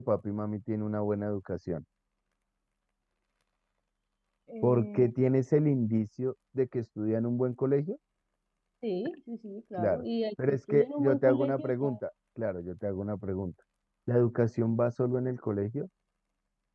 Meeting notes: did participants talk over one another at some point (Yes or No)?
Yes